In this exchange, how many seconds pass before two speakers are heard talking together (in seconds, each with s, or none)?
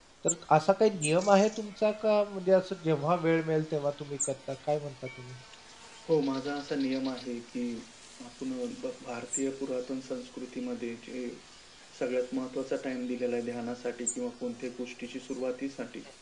none